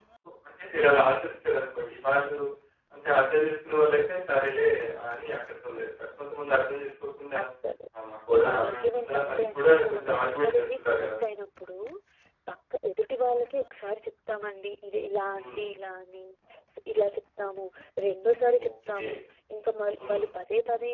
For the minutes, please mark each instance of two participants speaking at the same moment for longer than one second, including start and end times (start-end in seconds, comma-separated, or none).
8.6-11.1